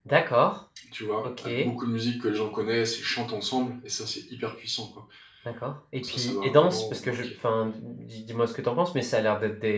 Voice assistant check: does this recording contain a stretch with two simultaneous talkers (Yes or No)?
Yes